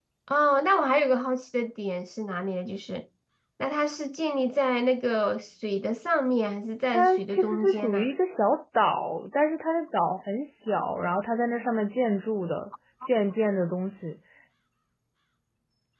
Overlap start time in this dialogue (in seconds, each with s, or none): 6.9 s